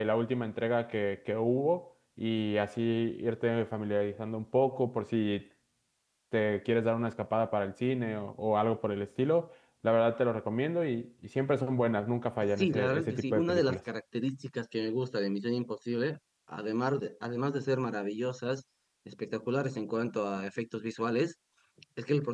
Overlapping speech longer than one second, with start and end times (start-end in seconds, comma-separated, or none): 12.4-13.8